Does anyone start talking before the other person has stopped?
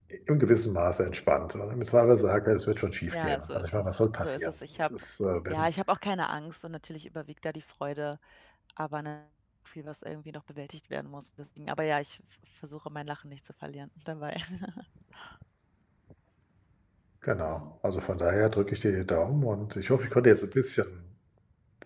Yes, from 3.1 s

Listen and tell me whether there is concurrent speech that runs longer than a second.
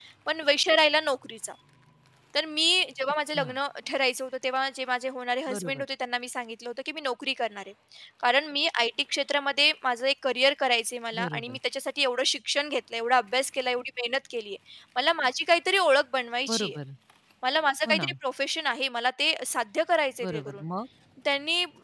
No

